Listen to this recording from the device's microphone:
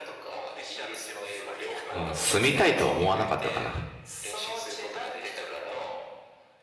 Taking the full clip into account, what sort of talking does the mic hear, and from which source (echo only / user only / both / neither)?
both